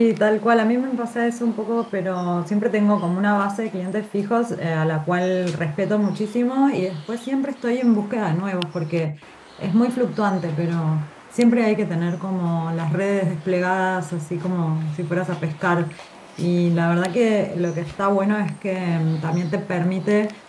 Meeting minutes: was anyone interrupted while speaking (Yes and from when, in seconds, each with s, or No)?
No